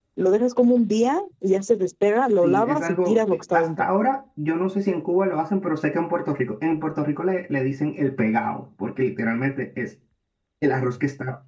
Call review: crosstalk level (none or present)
present